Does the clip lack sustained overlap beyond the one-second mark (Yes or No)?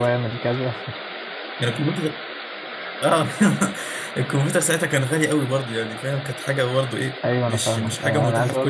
No